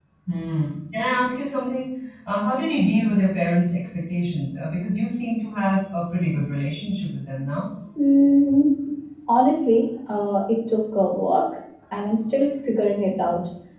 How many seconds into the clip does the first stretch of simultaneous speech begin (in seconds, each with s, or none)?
none